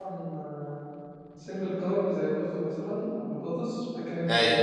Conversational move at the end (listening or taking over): listening